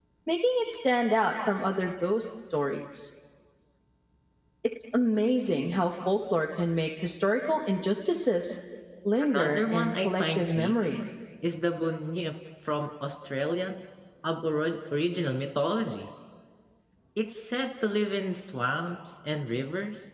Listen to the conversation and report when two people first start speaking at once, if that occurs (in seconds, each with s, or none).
9.2 s